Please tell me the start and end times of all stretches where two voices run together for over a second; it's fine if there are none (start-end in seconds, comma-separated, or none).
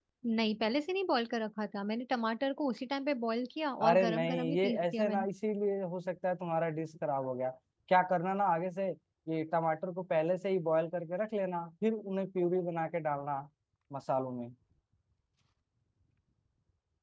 3.9-5.2